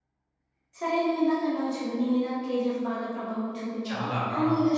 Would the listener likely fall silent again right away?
Yes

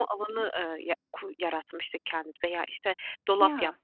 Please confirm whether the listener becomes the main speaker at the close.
No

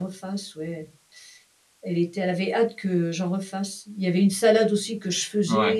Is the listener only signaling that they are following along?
Yes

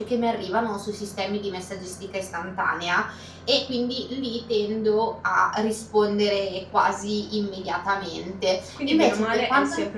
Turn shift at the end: Yes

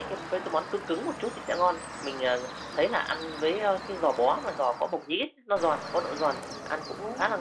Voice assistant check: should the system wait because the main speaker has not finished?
Yes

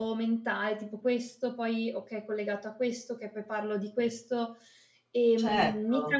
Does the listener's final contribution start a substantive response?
Yes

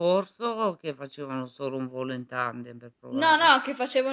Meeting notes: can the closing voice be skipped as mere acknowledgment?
No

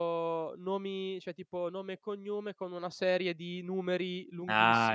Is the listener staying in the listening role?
No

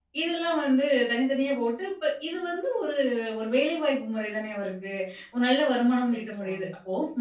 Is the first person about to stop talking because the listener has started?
No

